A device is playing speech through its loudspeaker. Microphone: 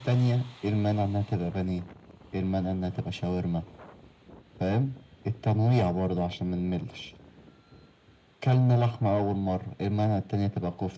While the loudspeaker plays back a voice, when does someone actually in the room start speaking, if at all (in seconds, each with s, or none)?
none